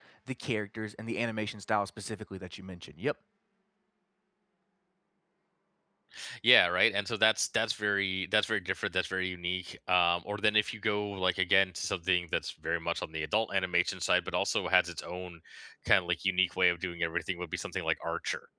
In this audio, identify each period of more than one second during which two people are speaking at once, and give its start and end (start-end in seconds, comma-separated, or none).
none